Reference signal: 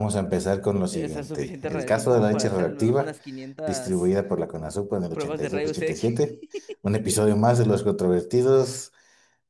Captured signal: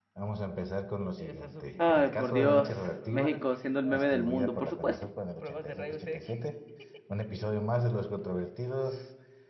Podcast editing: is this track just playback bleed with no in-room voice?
No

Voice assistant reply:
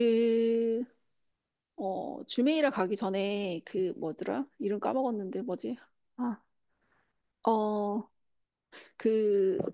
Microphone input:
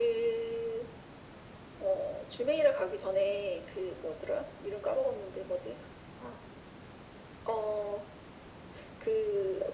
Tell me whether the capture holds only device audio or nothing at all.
Yes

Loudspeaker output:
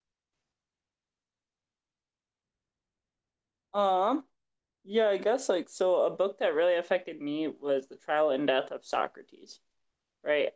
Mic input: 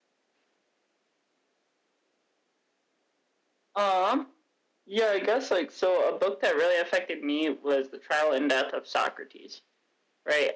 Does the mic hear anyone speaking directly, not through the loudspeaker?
No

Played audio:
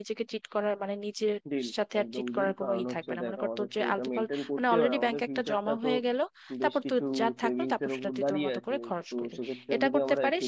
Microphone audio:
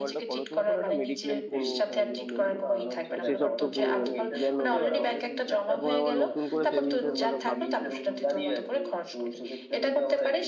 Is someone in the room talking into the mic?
Yes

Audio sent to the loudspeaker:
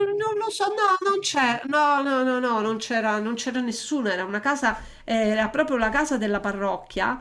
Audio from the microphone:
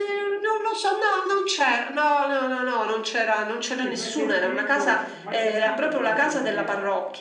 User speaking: Yes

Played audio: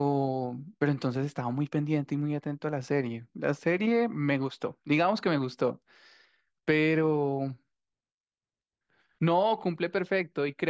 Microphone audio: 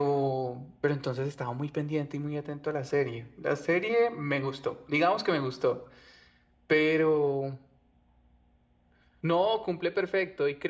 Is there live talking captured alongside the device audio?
No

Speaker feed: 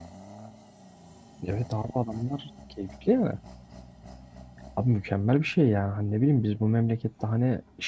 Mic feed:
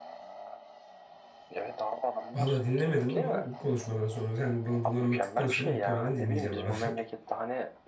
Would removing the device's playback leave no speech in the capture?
No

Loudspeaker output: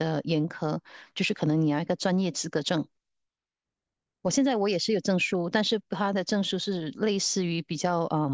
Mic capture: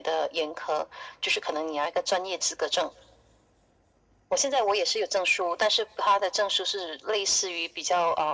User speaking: No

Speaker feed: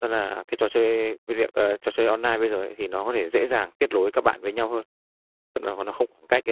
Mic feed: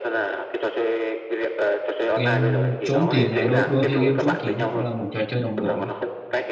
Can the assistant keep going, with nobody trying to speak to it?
No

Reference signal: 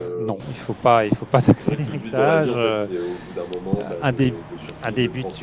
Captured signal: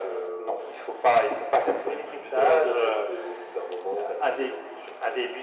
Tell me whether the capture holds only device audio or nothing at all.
Yes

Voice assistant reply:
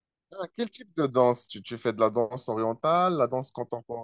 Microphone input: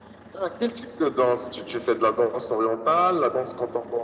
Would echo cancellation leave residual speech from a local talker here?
No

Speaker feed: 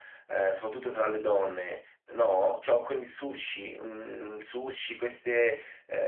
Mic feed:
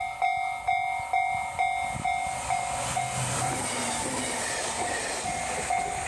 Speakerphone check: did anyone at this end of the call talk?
No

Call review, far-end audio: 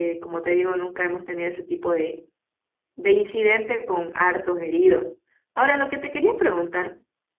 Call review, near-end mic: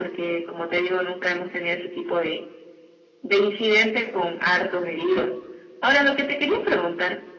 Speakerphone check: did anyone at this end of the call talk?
No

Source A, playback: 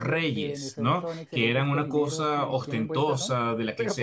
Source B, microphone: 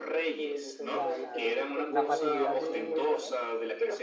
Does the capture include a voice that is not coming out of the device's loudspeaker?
Yes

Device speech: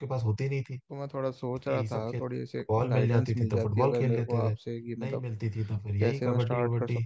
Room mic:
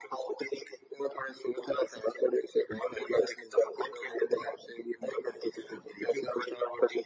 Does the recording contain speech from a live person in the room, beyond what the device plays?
No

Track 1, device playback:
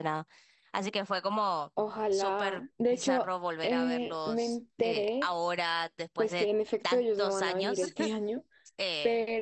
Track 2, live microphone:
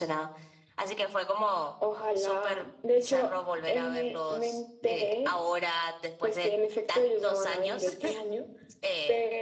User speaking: No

